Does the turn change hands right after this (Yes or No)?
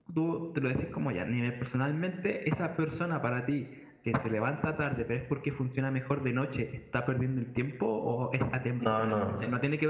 No